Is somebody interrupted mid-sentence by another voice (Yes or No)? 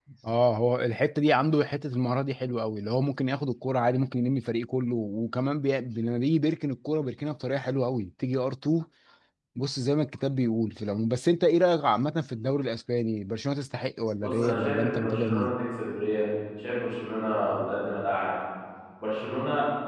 Yes